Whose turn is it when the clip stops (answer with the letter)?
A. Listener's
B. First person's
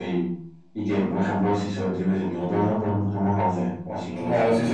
A